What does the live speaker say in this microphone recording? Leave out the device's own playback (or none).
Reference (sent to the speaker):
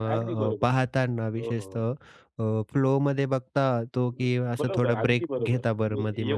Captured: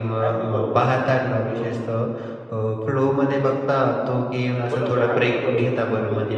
none